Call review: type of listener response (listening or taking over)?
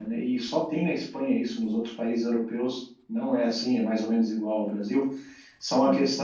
listening